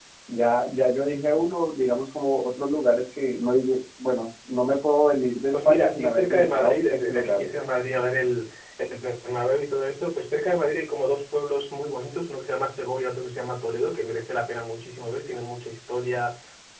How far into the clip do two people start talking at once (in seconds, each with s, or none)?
5.5 s